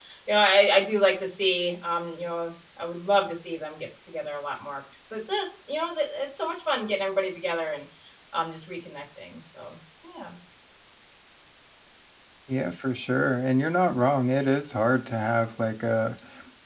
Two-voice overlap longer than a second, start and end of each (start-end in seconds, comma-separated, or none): none